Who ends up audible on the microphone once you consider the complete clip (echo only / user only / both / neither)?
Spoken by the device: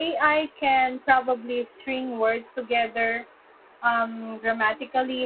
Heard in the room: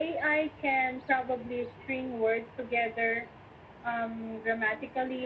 echo only